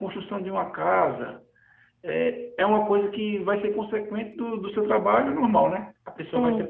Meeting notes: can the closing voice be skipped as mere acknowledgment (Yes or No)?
Yes